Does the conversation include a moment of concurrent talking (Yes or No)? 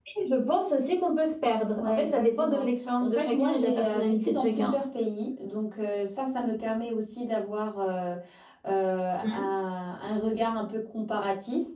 Yes